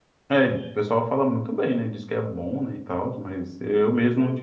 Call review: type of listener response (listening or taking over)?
listening